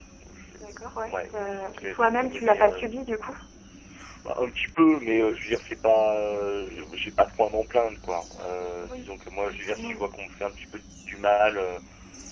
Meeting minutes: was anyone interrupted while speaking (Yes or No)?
Yes